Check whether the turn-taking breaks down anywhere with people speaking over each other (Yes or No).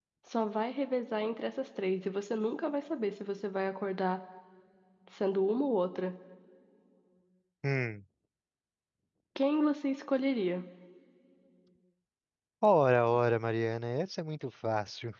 No